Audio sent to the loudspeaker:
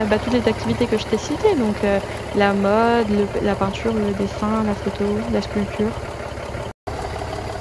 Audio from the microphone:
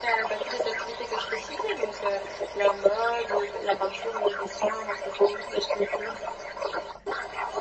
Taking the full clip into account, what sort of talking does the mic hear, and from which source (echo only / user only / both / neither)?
echo only